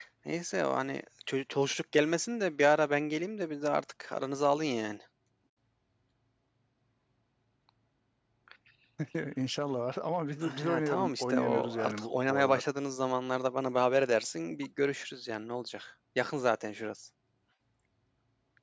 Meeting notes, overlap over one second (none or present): present